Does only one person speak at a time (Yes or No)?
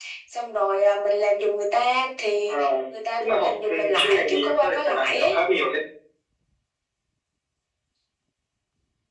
No